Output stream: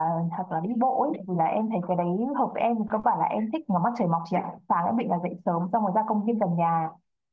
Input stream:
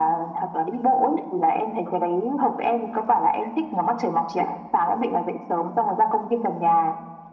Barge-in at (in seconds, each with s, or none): none